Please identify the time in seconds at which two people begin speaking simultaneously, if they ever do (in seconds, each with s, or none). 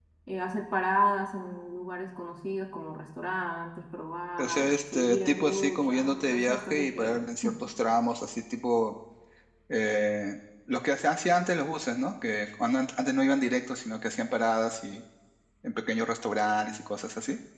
4.4 s